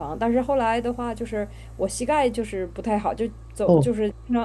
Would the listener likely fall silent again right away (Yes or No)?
Yes